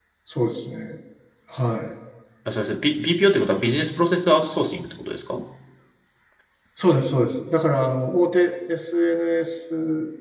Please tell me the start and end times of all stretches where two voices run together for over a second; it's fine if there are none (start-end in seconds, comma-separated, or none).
none